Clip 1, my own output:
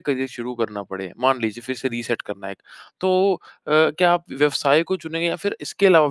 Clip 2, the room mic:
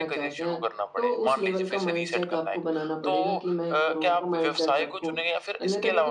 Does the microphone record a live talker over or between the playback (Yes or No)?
Yes